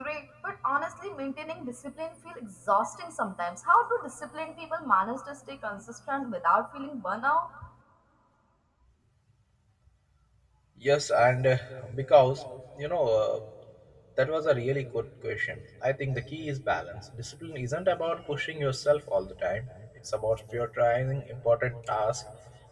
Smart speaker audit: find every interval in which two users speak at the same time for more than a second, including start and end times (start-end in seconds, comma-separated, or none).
none